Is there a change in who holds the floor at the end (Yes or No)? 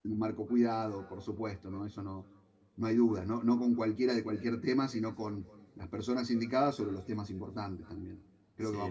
Yes